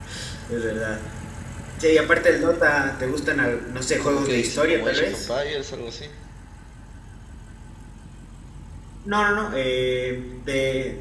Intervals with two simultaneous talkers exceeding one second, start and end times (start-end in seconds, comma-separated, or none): 4.0-5.3